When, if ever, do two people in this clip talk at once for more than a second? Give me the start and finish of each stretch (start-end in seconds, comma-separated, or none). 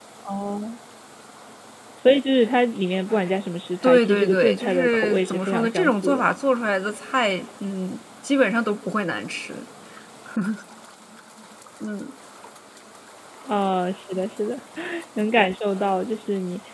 3.8-6.3